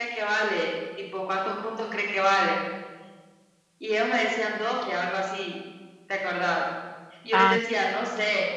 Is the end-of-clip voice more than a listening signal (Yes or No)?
No